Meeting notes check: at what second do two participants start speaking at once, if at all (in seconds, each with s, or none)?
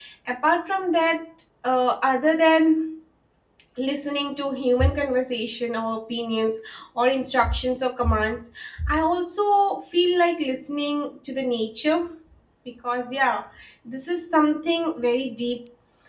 none